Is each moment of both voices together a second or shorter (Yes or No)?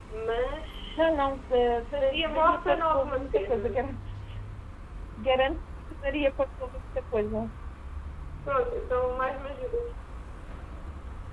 No